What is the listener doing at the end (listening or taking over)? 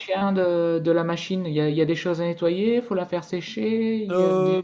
taking over